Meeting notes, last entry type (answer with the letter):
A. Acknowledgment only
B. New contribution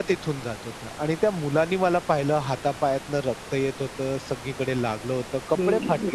B